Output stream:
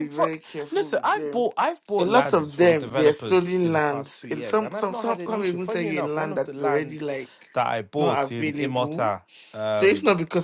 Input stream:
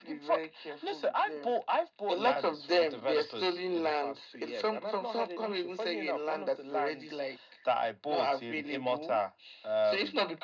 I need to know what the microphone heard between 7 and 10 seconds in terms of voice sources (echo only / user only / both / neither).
echo only